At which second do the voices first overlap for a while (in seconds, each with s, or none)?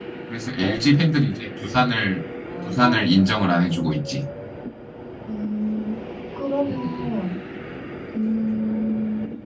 2.6 s